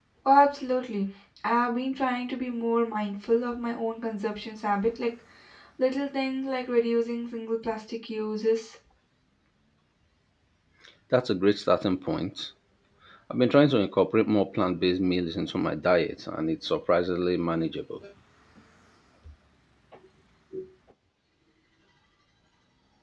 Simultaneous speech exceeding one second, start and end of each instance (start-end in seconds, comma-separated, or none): none